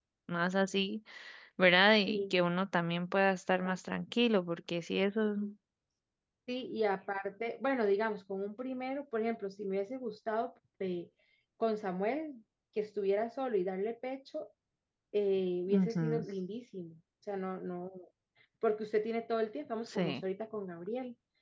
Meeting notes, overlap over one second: none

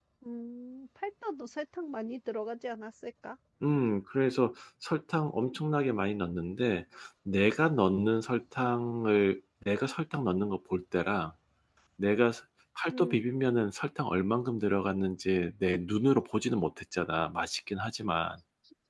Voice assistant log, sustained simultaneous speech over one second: none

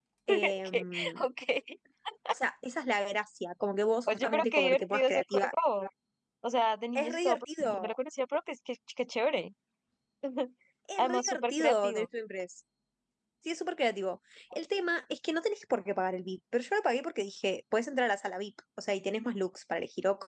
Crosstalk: present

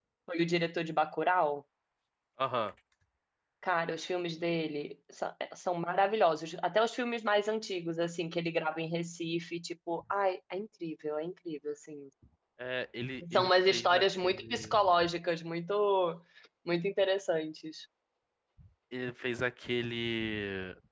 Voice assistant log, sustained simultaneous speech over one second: present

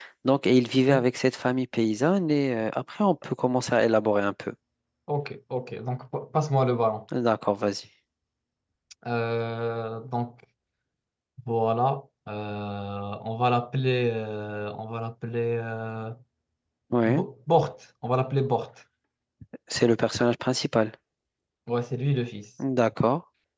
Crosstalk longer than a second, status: none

